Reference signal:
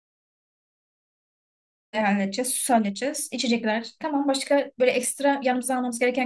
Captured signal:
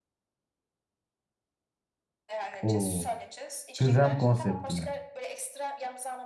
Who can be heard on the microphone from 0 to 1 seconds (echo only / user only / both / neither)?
neither